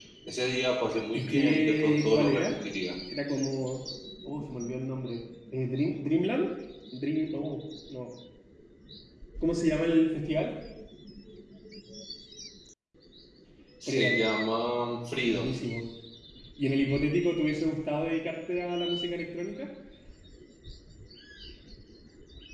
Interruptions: present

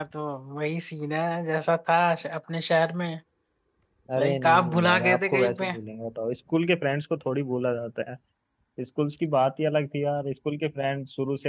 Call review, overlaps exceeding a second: present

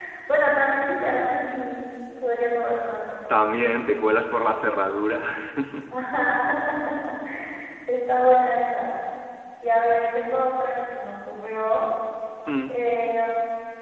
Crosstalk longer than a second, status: none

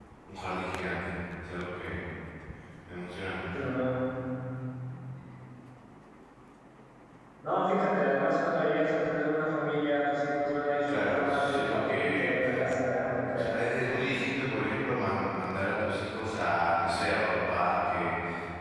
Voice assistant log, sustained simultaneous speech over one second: present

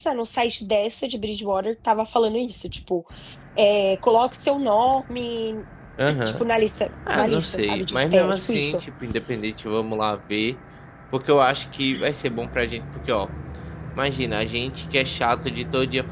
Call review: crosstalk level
present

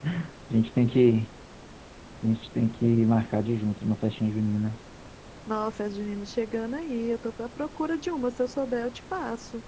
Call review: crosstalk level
none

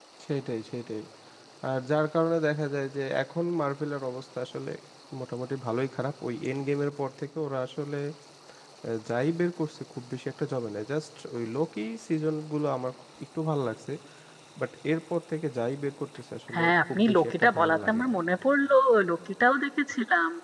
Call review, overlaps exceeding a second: present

